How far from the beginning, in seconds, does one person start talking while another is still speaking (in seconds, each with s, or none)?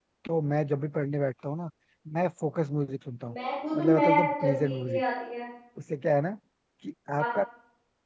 3.8 s